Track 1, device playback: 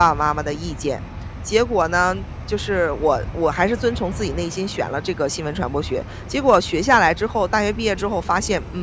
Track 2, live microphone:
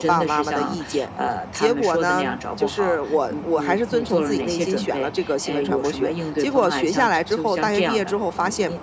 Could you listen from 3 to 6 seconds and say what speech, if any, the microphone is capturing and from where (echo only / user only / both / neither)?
both